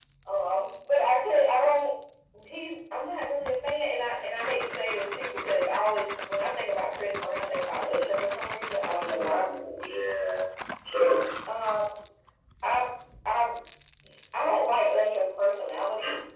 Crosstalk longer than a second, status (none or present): none